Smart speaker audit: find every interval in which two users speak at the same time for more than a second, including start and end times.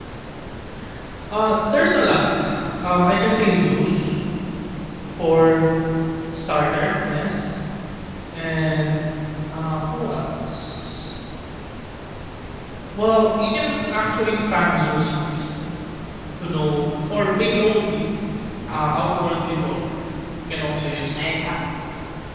none

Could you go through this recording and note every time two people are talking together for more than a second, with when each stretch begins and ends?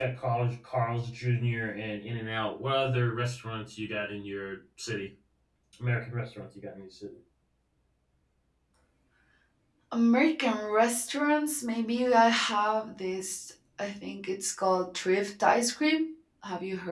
none

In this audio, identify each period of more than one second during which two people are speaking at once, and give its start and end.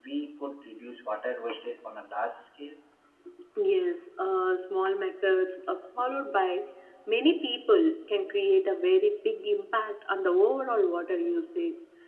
none

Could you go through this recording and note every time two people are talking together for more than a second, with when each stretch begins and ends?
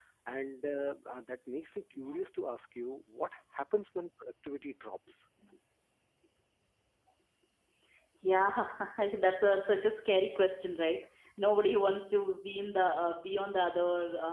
none

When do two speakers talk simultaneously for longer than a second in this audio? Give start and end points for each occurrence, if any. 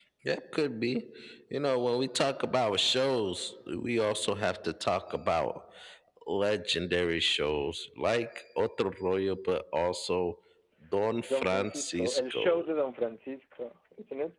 11.3-12.6

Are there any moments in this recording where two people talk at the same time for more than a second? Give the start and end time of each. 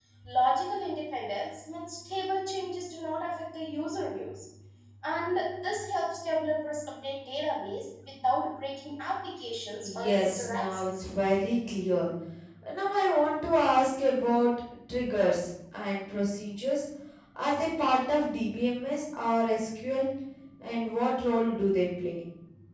9.8-11.1

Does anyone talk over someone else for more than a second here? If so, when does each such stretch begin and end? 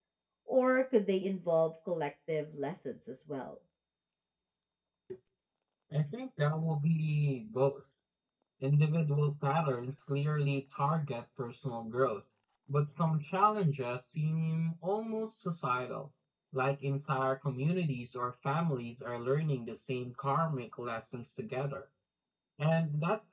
none

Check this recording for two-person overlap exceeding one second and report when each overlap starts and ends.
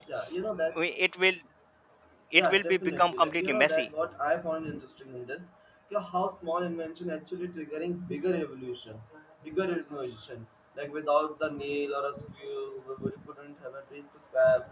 2.4-3.9

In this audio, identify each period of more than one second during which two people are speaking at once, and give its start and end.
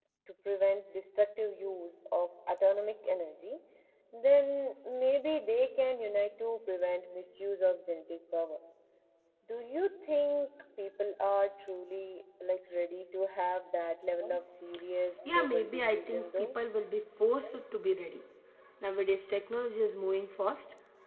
15.3-16.6

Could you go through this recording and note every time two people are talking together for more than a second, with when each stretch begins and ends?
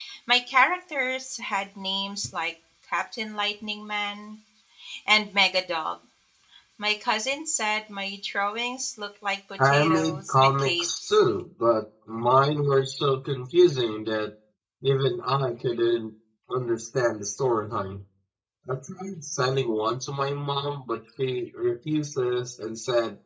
9.6-11.2

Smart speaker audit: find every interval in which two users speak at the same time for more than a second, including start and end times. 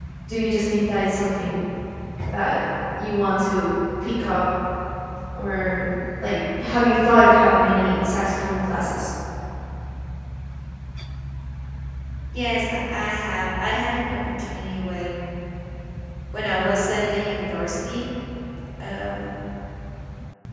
none

